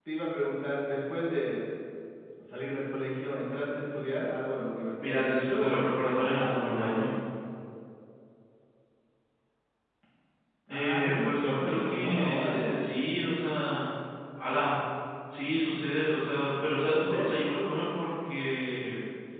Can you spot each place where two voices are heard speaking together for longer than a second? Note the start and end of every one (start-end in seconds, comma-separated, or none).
5.0-7.1, 10.7-12.8